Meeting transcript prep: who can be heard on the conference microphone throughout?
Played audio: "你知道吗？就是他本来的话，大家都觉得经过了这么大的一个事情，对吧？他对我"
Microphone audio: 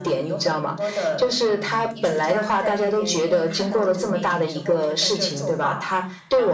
both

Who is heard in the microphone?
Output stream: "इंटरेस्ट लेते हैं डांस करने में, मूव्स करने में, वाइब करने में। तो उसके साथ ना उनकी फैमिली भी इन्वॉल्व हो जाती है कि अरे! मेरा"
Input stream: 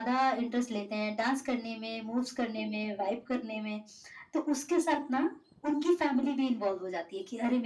echo only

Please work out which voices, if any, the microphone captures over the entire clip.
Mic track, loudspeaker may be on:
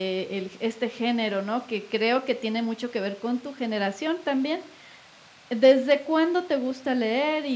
user only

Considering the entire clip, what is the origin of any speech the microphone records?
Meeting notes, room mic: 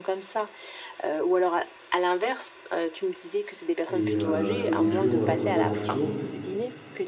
both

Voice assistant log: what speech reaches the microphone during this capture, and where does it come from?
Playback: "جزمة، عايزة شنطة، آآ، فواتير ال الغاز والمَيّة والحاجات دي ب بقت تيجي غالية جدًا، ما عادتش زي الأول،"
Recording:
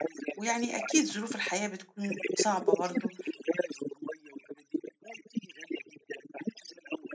both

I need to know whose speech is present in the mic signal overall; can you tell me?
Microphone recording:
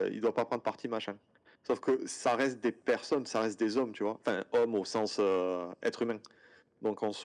echo only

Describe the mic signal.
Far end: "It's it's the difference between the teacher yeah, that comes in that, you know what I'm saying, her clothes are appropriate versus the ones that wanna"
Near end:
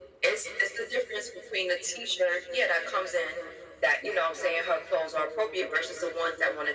echo only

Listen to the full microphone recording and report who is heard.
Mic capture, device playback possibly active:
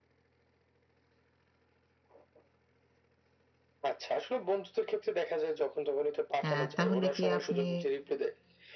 both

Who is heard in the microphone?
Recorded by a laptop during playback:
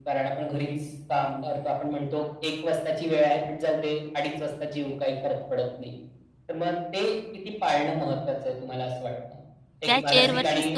both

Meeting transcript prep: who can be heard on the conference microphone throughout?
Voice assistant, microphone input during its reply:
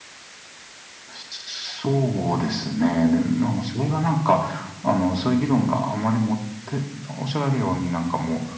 echo only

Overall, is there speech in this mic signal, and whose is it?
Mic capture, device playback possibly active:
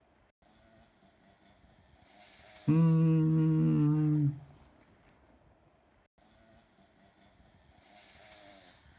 user only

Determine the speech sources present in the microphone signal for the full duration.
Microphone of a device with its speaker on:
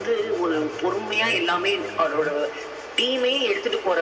both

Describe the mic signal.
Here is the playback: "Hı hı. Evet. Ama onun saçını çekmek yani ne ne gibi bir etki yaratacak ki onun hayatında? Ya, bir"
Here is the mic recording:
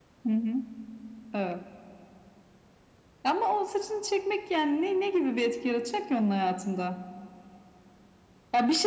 echo only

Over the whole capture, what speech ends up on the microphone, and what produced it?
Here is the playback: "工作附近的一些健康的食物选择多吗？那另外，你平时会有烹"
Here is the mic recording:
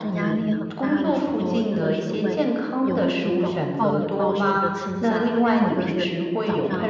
both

